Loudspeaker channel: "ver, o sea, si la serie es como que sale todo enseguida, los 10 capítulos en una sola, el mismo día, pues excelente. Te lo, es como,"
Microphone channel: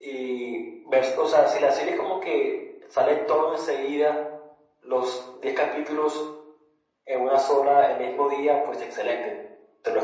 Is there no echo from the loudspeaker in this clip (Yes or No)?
No